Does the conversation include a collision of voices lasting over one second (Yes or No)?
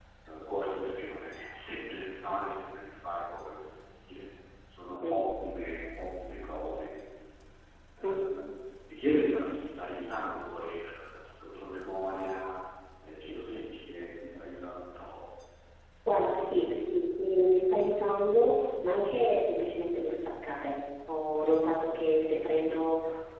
No